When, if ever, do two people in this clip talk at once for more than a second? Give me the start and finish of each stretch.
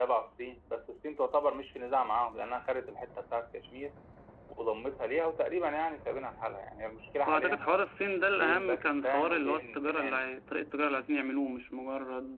8.3-10.2

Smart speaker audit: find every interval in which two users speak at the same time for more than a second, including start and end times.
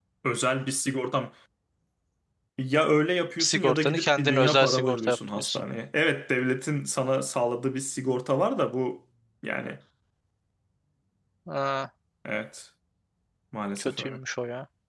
3.4-5.6

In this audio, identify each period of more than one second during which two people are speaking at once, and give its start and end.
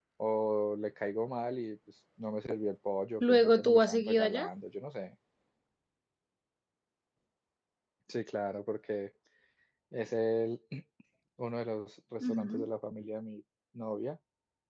3.2-4.5

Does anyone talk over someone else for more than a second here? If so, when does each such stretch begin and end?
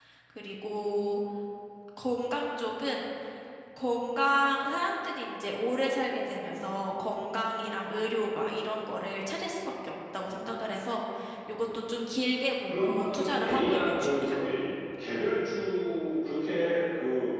12.7-14.3

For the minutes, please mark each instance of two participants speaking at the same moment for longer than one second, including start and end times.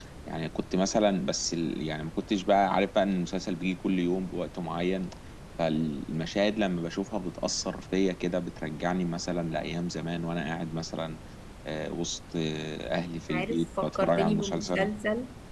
13.3-14.9

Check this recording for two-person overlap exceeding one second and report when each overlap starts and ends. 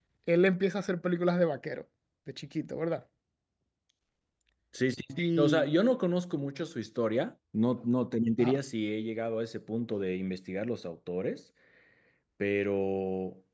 none

